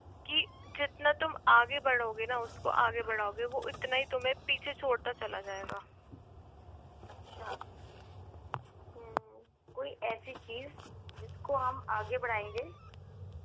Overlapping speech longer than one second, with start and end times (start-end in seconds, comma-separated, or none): none